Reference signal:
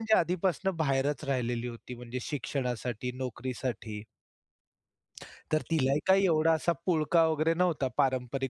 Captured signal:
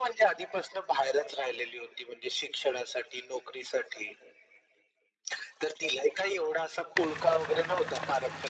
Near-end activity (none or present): none